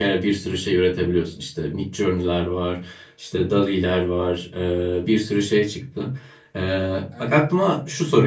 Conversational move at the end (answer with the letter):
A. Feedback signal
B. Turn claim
A